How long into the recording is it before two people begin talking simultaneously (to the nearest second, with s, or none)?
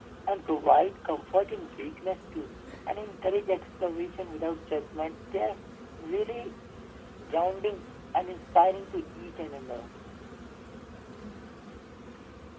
none